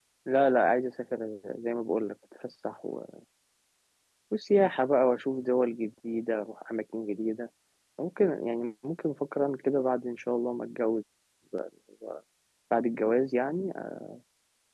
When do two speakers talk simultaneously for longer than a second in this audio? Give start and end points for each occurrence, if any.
none

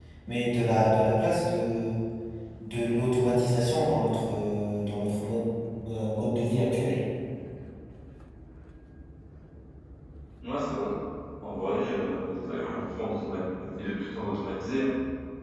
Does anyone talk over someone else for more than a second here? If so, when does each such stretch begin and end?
none

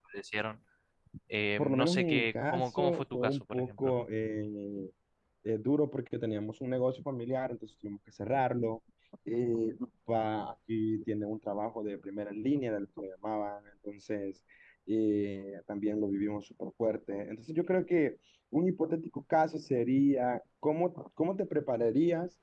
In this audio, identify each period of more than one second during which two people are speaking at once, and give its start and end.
1.6-3.9

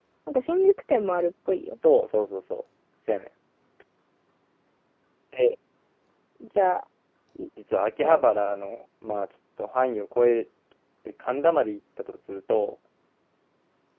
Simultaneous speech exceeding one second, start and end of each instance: none

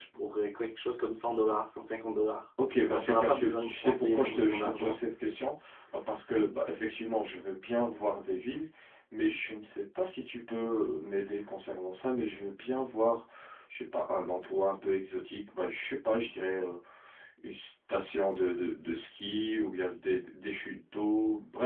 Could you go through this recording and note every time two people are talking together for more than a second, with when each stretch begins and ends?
2.9-5.0

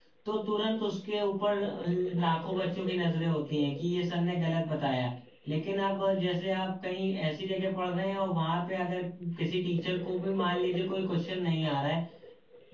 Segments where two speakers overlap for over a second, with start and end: none

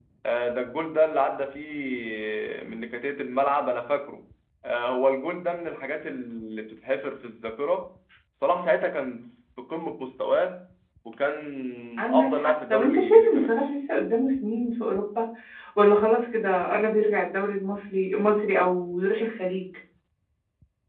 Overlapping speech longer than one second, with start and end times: 12.1-13.6

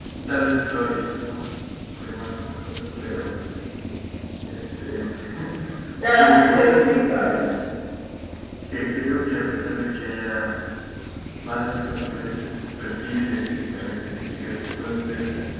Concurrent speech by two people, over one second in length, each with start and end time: 6.2-7.4

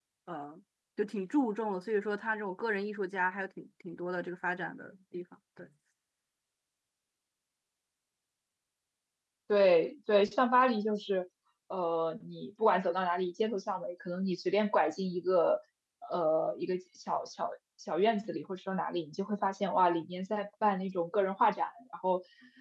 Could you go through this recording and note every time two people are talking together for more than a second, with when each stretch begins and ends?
none

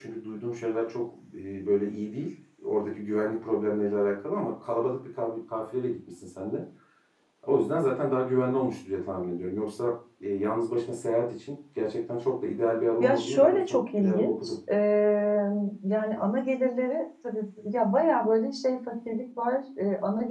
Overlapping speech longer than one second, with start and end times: 13.0-14.6

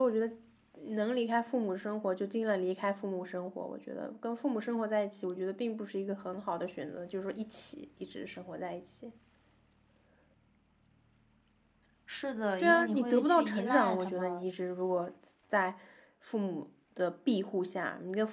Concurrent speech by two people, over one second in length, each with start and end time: 12.6-14.4

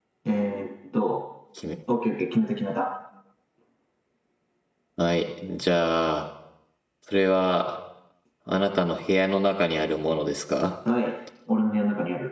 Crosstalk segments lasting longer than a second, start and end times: none

